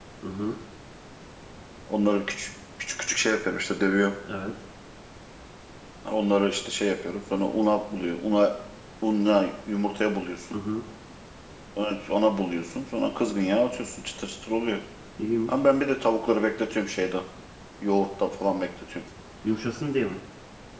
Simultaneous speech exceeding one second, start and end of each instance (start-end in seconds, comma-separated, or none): none